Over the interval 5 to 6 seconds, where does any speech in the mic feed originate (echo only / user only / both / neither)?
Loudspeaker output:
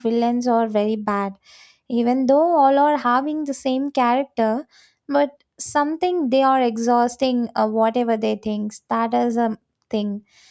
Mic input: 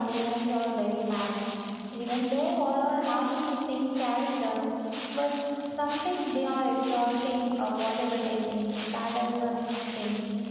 echo only